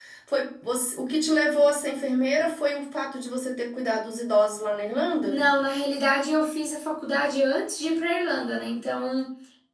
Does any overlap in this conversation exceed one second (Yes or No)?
No